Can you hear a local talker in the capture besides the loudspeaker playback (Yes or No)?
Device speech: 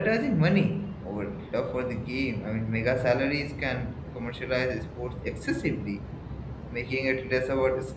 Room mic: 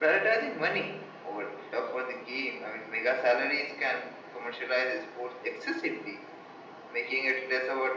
No